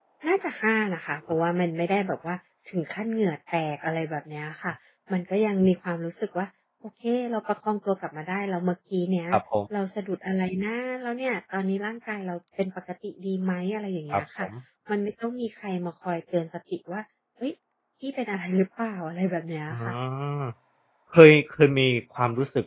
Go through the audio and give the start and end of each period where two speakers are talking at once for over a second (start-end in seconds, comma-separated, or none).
none